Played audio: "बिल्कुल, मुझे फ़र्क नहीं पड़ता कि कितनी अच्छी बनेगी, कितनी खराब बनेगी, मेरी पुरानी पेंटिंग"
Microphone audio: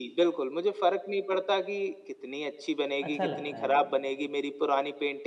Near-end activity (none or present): present